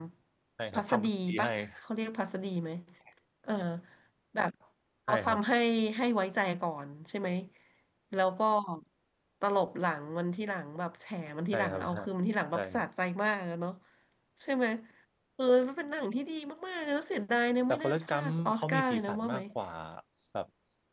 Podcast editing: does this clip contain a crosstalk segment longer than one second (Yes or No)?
Yes